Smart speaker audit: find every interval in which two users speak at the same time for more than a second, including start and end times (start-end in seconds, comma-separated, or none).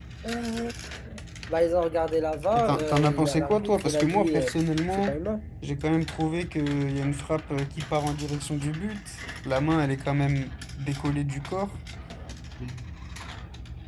2.5-4.5